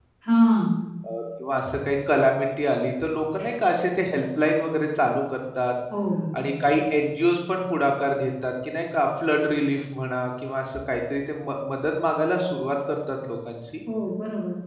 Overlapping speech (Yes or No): No